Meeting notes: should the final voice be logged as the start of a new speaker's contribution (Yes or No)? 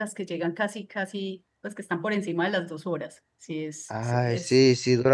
Yes